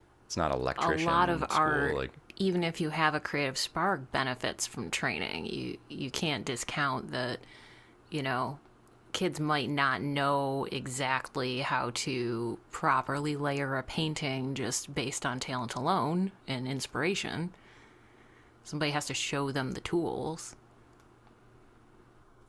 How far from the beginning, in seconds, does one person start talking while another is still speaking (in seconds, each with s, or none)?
0.8 s